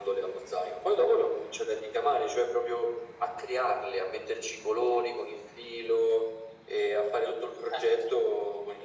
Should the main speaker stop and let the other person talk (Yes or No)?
No